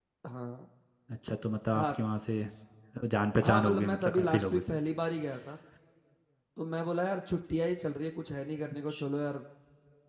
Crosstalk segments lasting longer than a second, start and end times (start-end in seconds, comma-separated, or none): 3.4-4.8